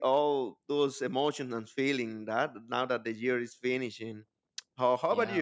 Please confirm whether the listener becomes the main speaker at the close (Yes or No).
Yes